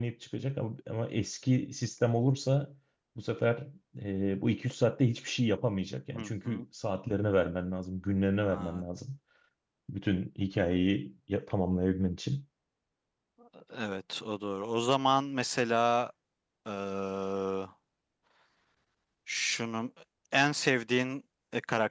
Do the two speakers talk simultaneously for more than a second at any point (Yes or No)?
No